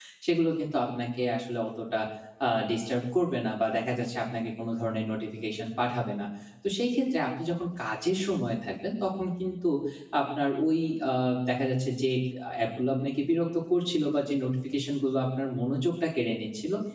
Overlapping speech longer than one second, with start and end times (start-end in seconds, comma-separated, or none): none